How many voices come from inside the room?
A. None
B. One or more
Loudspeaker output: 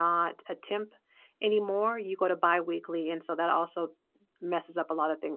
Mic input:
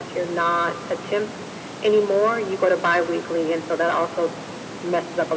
A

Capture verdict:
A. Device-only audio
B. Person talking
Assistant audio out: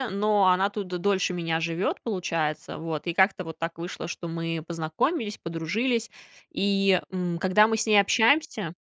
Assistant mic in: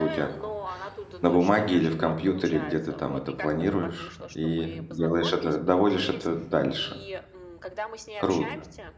B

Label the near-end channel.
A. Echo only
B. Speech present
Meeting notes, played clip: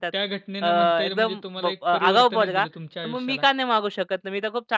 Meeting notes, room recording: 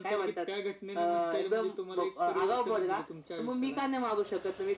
A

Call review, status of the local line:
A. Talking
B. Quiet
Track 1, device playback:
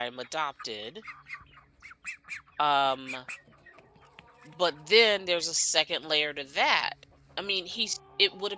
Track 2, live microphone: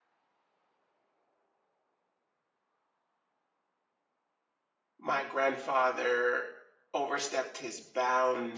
A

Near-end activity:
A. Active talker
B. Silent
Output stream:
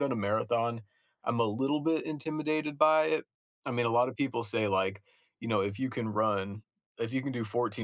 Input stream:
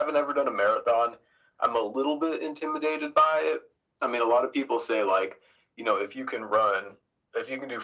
B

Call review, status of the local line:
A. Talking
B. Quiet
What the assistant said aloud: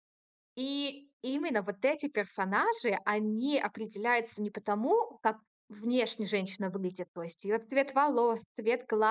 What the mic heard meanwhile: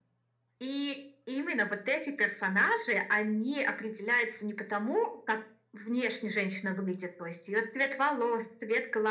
B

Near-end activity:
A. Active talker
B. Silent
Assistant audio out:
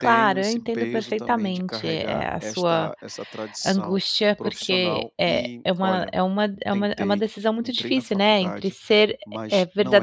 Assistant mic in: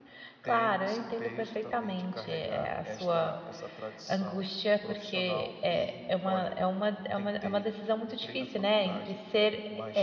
B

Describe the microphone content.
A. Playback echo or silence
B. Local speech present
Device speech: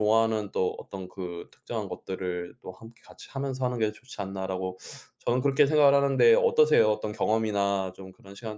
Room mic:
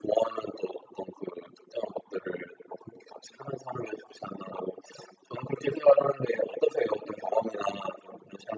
A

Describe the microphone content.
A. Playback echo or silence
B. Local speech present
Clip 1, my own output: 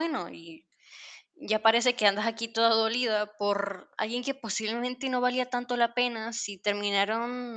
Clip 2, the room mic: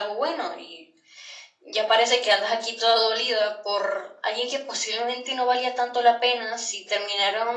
A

